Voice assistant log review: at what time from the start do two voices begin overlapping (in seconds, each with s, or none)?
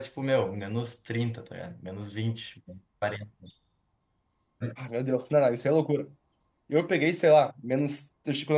none